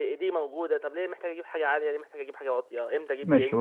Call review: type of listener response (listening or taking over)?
taking over